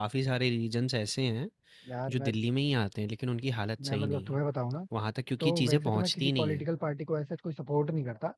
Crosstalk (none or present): present